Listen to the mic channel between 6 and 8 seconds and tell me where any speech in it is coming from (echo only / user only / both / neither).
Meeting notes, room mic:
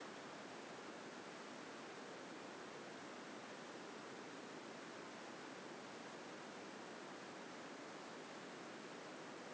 neither